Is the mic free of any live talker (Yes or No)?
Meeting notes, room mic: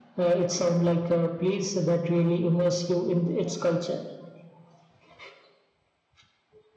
Yes